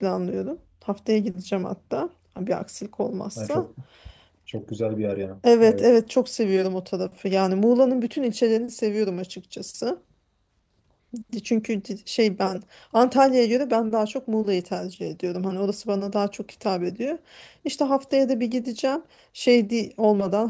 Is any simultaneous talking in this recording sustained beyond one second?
No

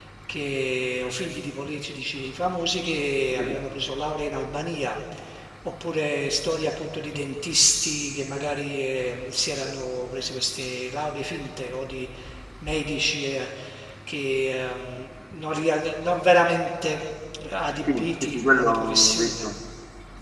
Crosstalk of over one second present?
Yes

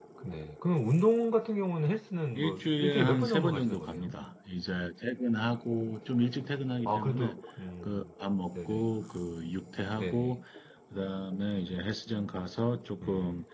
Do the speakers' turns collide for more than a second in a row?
Yes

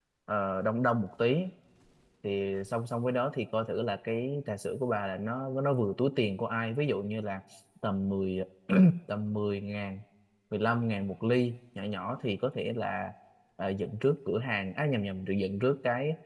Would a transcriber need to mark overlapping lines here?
No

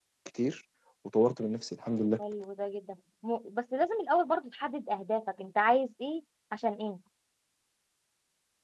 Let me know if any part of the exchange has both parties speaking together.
No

